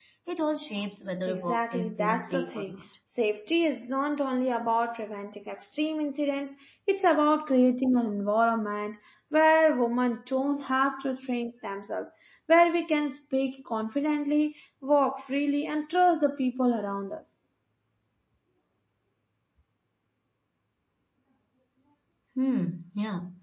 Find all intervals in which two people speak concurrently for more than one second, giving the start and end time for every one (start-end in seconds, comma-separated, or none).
1.3-2.8